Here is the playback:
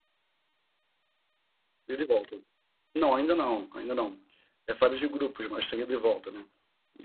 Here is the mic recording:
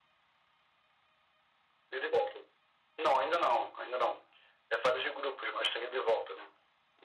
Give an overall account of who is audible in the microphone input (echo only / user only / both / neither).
echo only